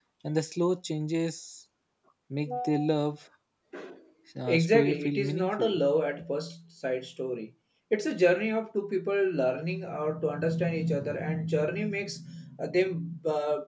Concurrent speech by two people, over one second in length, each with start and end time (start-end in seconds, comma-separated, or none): 4.4-5.7